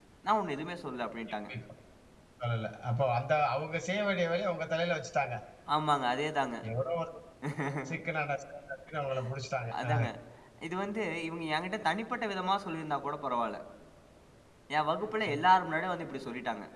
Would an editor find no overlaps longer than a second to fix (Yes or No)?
Yes